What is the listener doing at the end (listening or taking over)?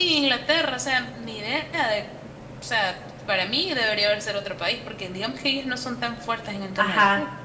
taking over